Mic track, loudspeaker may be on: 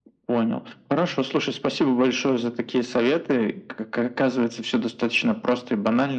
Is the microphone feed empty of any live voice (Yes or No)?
Yes